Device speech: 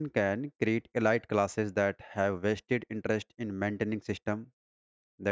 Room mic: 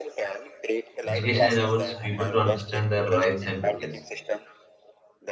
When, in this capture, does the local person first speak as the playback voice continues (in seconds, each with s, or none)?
1.0 s